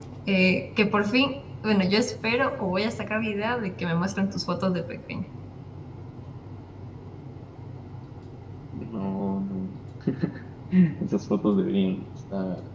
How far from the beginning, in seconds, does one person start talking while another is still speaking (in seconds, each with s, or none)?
none